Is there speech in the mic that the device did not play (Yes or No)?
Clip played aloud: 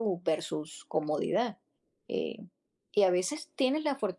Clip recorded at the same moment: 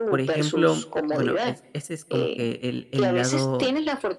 Yes